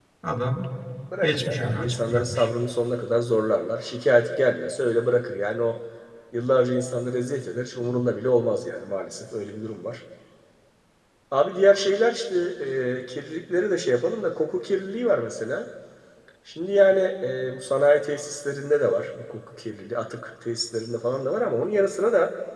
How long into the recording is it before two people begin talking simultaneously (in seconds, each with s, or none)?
1.2 s